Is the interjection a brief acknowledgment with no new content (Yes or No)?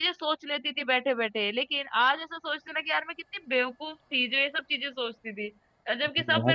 Yes